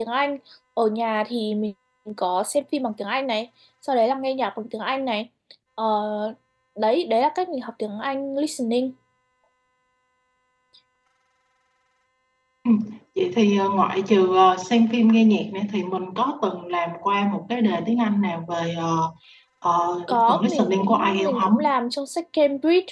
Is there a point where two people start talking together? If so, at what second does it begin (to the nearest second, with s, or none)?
20 s